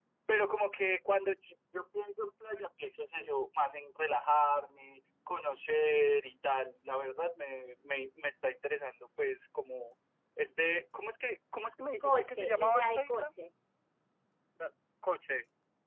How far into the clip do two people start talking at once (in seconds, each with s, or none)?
12.0 s